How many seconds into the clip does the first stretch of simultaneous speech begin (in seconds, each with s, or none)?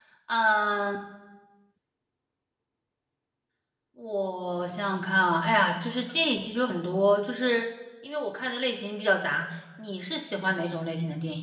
none